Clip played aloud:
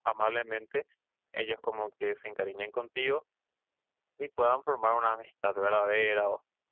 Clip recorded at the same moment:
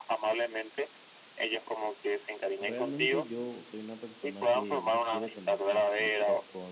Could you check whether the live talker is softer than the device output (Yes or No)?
Yes